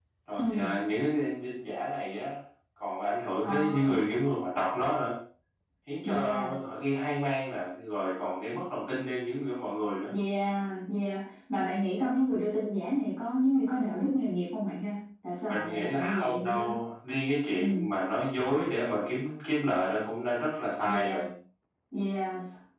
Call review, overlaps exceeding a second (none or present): present